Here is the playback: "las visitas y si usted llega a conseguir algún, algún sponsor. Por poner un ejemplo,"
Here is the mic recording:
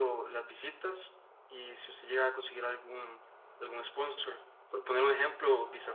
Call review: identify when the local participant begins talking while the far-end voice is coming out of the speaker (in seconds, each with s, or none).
none